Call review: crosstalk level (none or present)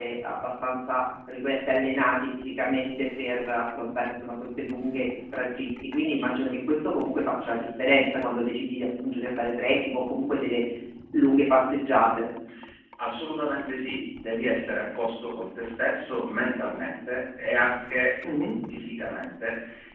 none